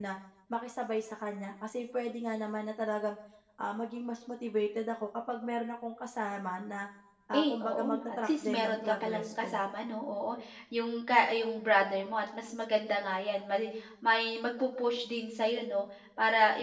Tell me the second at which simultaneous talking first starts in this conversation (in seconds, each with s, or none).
7.4 s